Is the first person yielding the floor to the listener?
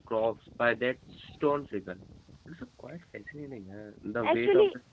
Yes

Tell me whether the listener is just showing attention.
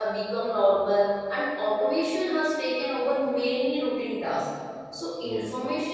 Yes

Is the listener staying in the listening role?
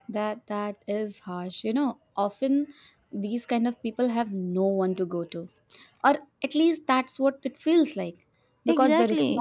Yes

